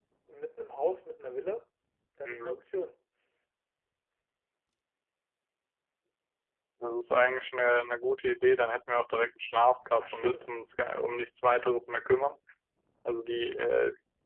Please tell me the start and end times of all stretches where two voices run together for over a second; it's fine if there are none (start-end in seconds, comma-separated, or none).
none